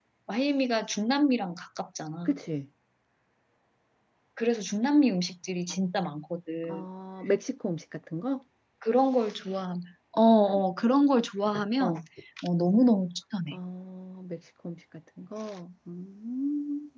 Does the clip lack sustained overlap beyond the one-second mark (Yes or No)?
Yes